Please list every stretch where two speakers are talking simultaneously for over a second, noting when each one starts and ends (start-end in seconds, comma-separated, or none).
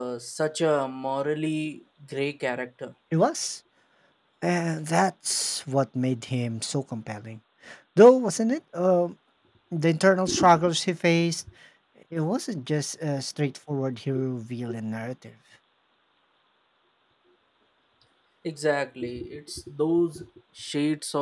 none